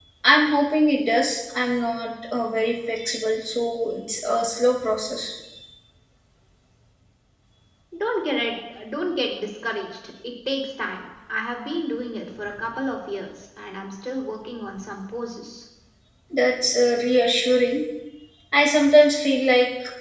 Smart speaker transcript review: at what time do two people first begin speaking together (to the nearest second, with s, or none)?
none